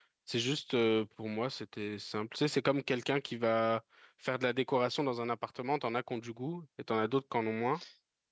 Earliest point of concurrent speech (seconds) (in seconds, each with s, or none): none